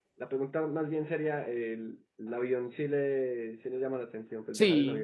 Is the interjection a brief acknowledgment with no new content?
No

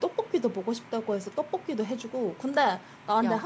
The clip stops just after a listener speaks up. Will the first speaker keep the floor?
Yes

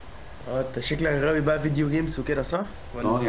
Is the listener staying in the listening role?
No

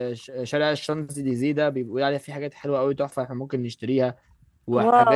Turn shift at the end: No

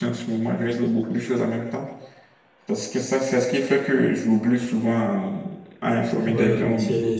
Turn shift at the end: Yes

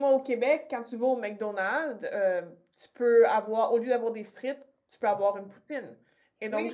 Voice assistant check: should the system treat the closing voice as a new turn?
Yes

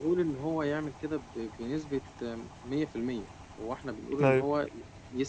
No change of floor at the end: Yes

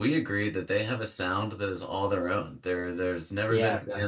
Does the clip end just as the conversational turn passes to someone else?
No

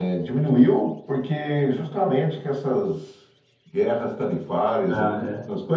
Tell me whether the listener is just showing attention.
Yes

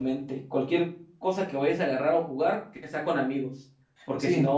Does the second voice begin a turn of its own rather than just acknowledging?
No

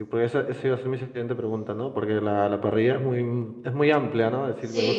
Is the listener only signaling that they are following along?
No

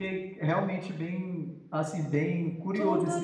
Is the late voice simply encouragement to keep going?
No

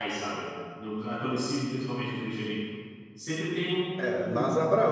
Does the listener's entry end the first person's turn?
Yes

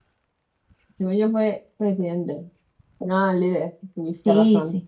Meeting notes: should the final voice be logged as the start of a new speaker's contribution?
Yes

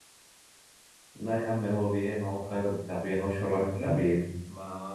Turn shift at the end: Yes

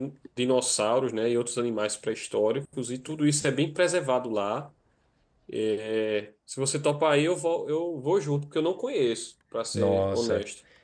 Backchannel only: No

